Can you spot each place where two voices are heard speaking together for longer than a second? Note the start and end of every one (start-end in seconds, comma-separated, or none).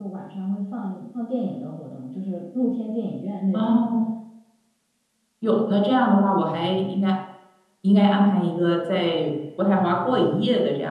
none